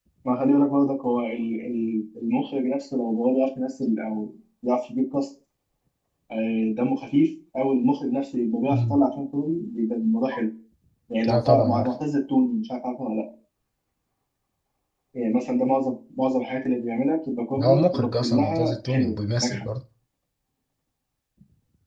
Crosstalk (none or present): present